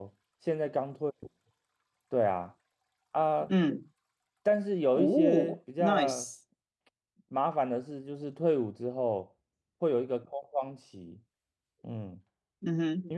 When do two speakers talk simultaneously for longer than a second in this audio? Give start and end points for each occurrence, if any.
5.0-6.2

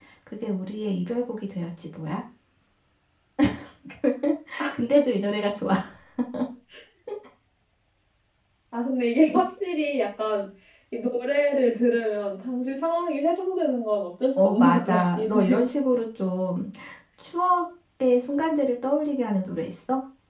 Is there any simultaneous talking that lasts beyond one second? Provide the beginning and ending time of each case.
14.3-15.6

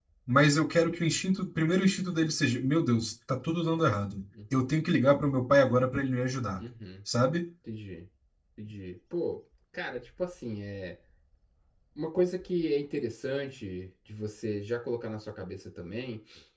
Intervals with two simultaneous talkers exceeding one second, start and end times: none

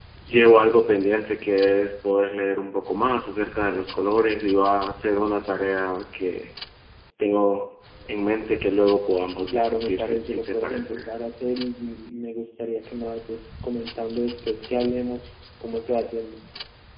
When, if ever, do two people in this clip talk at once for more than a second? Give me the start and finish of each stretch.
9.5-11.0

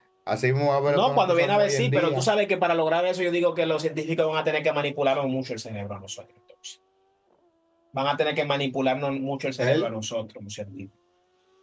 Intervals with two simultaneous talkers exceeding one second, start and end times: 0.9-2.3

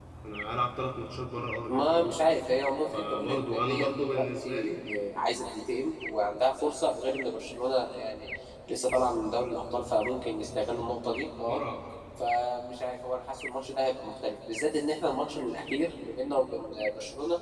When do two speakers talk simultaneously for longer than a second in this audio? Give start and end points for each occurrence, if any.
2.9-4.7

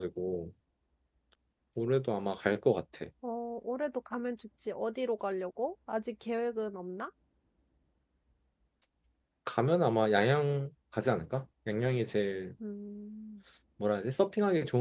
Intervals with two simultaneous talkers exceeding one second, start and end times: none

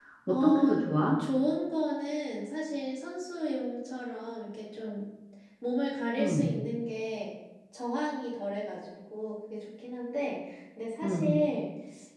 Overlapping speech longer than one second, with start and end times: none

